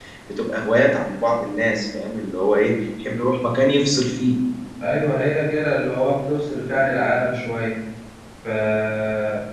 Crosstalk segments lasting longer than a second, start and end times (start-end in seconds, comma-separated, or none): none